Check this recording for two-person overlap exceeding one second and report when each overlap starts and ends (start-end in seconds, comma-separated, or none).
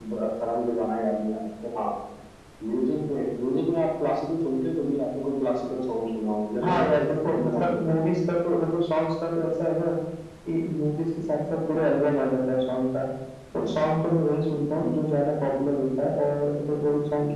6.6-8.1